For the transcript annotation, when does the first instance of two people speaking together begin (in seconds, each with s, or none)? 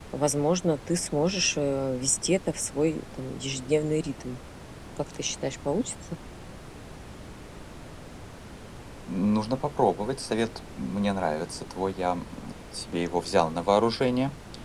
none